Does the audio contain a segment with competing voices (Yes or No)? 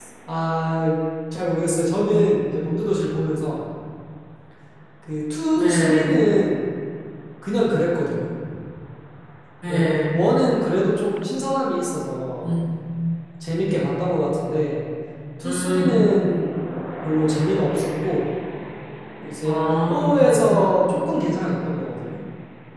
Yes